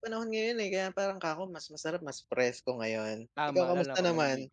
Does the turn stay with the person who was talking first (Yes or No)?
No